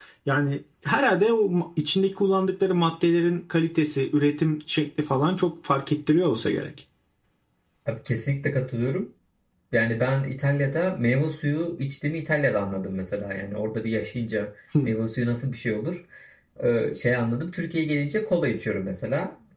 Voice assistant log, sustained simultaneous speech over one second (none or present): none